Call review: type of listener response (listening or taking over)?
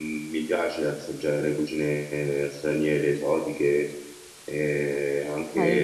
taking over